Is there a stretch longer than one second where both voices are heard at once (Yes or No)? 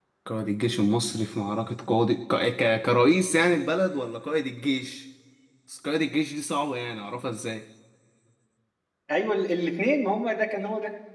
No